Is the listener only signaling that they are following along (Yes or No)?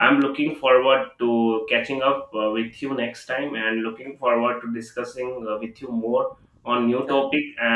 Yes